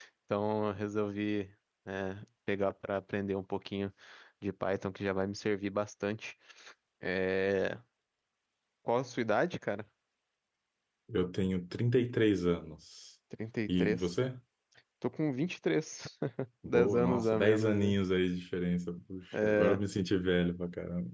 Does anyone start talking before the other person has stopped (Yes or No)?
Yes